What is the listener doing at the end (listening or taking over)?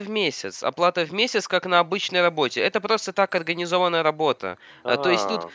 listening